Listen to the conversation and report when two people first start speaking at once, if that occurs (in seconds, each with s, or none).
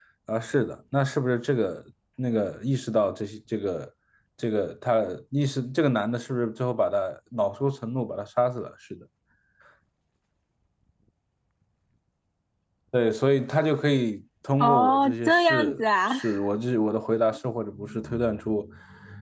14.6 s